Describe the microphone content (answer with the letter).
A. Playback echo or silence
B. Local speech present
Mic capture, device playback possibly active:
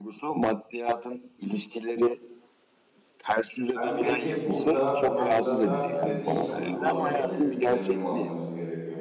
B